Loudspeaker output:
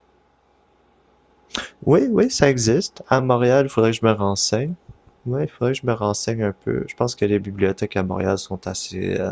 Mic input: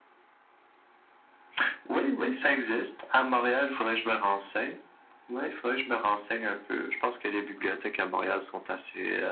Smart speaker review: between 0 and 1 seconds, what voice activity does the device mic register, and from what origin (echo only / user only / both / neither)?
neither